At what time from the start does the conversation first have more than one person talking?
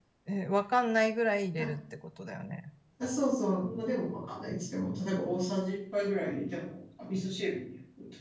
none

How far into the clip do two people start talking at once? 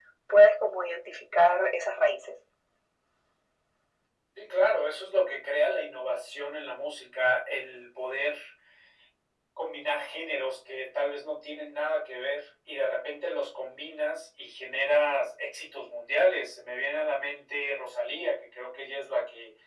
none

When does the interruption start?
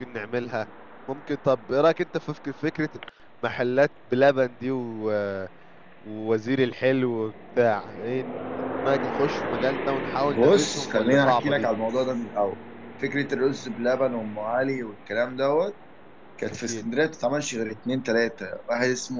10.3 s

